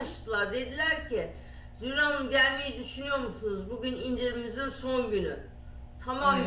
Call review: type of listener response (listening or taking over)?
listening